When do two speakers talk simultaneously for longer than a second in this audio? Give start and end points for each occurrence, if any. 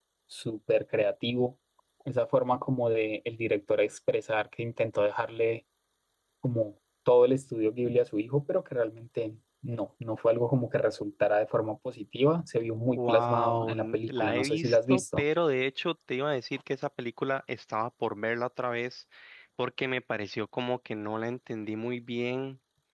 12.9-15.2

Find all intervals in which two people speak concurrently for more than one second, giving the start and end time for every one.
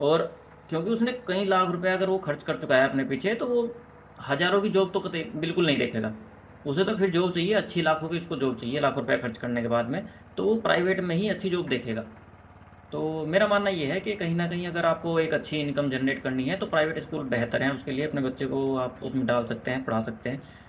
none

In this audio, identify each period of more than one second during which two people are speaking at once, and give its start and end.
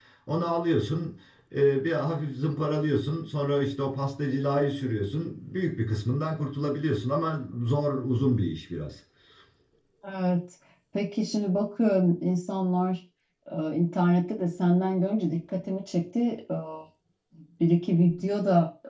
none

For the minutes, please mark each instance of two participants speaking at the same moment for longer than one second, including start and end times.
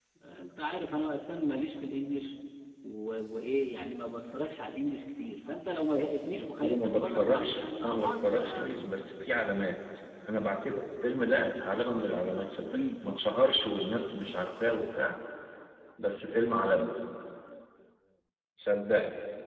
6.6-8.7

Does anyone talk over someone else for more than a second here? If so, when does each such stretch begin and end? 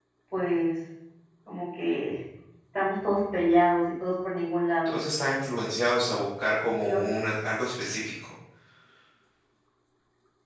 none

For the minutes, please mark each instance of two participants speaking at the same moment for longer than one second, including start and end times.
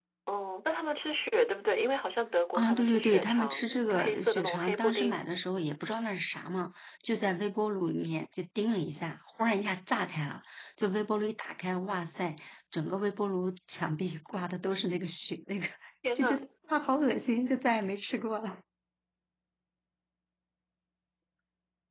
2.5-5.2

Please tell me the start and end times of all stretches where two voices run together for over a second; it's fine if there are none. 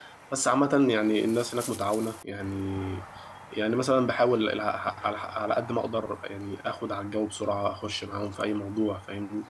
none

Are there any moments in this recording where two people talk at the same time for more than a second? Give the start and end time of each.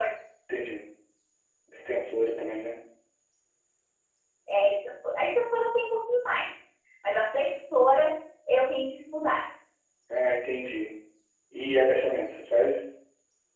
none

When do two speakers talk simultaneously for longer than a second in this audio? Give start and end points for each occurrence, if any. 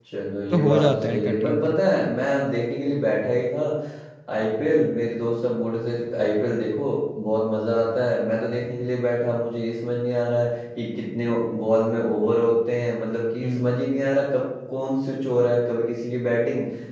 0.5-1.8

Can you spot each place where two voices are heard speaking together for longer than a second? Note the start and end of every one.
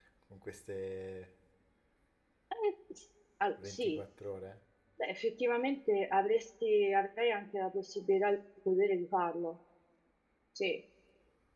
none

